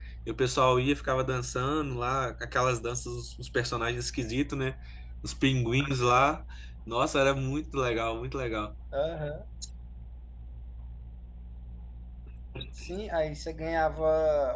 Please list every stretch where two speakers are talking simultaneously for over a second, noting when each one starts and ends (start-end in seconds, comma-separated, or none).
none